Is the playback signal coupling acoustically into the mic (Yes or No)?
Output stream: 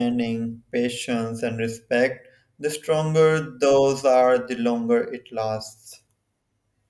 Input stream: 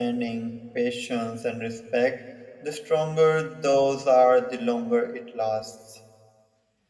Yes